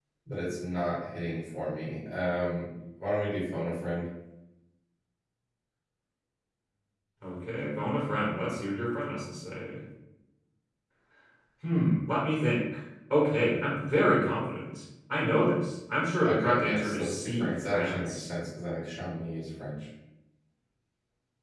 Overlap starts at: 16.2 s

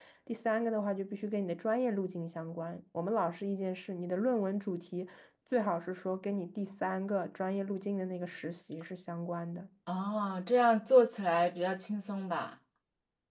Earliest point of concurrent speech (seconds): none

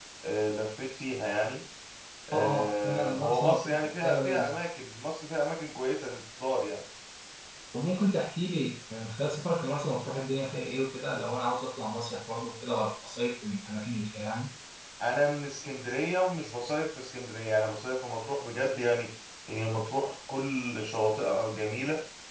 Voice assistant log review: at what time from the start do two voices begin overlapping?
2.3 s

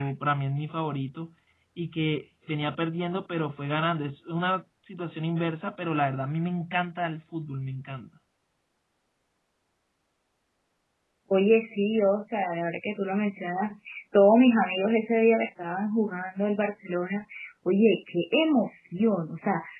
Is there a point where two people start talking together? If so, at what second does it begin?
none

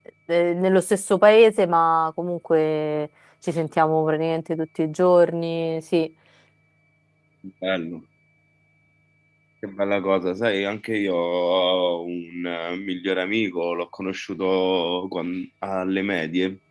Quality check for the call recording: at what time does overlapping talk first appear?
none

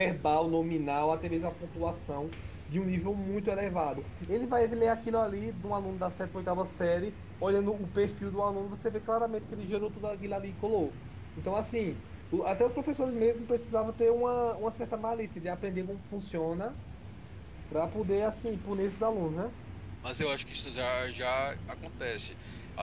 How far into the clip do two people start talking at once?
none

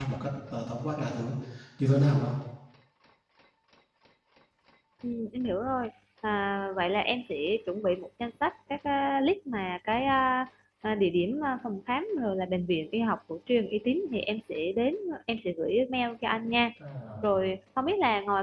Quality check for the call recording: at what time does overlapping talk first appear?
none

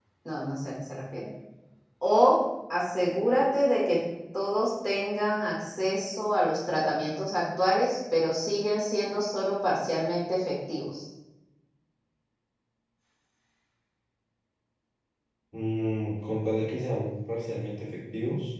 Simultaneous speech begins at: none

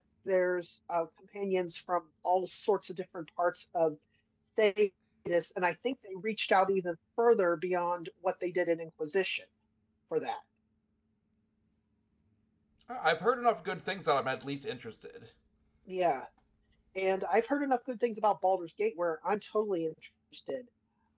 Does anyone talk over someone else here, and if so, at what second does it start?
none

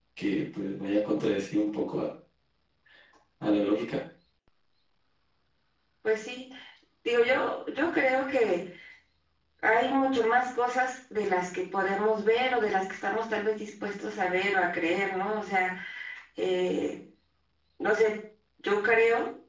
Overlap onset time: none

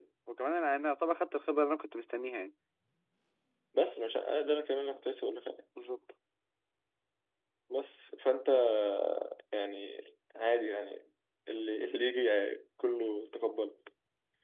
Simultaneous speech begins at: none

